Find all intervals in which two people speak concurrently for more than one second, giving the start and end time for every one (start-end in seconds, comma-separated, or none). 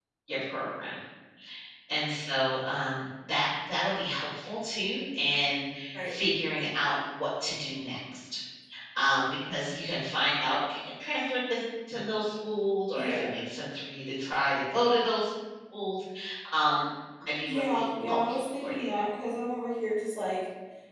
17.5-18.8